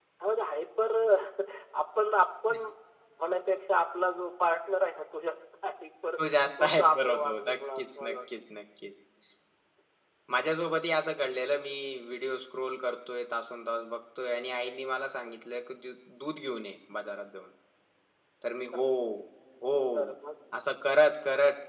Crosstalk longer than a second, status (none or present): present